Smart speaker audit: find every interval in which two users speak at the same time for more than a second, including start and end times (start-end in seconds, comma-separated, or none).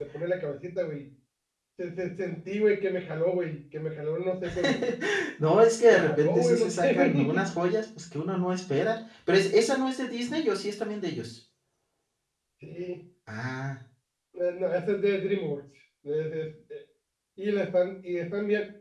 5.9-7.5